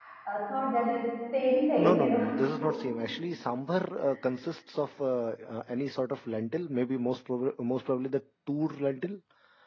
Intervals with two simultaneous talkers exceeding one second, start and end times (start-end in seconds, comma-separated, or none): none